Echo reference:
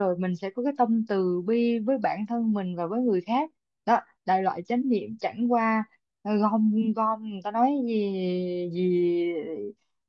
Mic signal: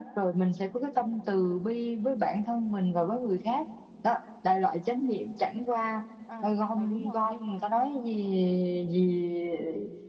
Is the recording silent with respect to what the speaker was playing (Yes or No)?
No